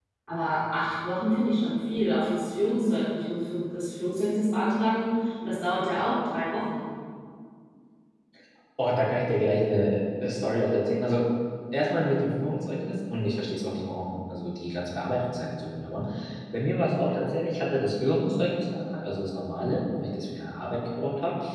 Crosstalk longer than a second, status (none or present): none